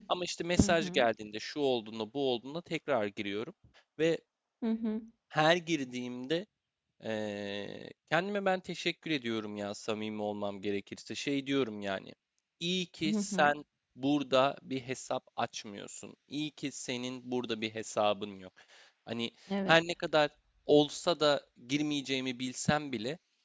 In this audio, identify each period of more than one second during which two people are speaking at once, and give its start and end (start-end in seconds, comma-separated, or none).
none